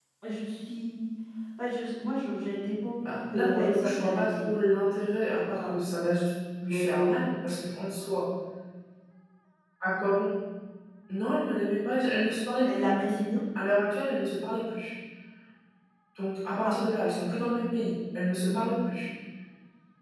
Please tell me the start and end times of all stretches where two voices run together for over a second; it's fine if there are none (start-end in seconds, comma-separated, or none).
3.1-4.5